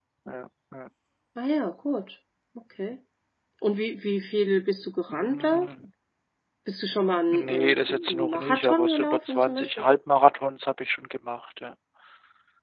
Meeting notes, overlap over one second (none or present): present